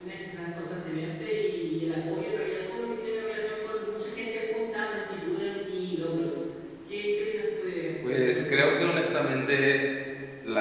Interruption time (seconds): 8 s

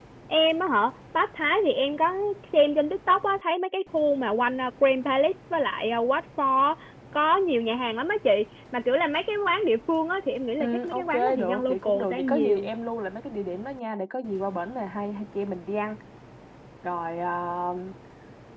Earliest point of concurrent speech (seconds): 11 s

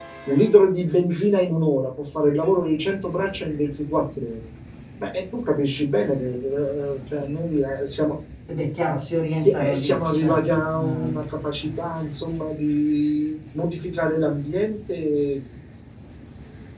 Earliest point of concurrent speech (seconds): 9 s

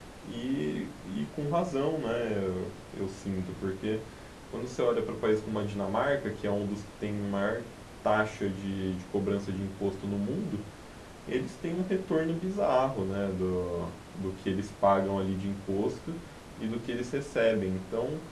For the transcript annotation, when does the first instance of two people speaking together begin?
none

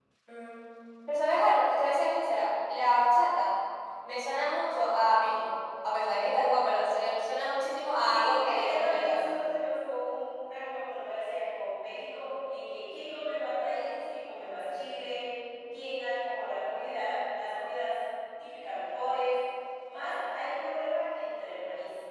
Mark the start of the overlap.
8 s

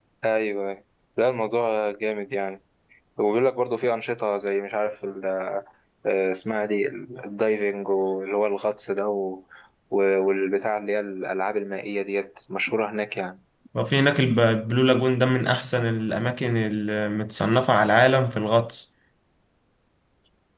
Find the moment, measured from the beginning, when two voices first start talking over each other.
none

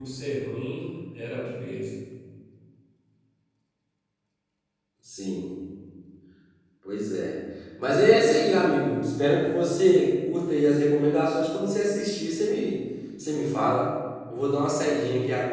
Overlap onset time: none

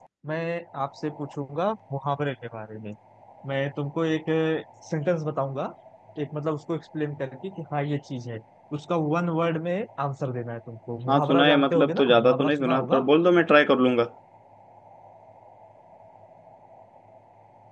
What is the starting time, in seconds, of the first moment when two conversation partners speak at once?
11 s

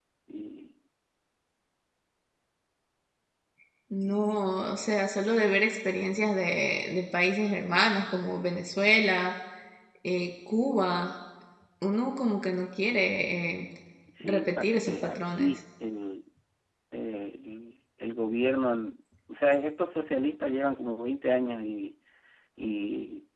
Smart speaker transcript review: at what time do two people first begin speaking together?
14 s

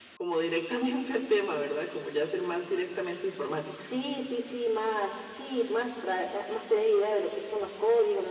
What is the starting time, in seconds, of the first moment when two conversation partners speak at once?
none

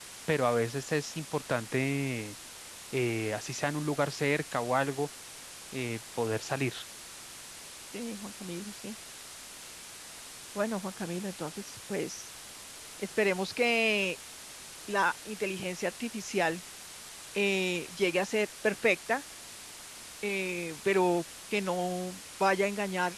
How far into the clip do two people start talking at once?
none

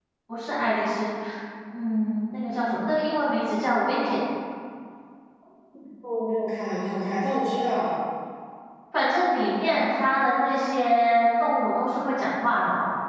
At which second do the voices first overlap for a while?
none

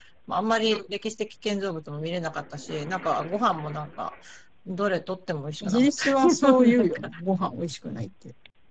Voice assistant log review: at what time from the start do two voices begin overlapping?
6 s

